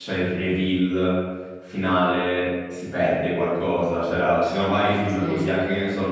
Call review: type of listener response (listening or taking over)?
listening